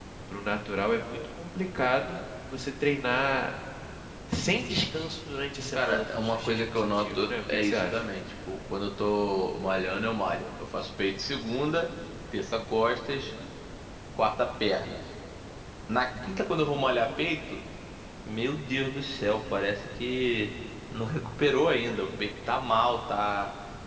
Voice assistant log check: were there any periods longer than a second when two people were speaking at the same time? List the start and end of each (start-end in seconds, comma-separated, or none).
5.7-8.0